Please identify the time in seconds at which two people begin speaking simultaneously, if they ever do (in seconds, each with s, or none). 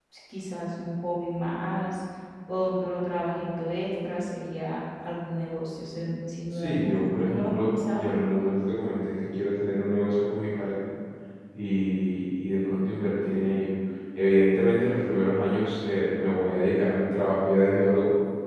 6.5 s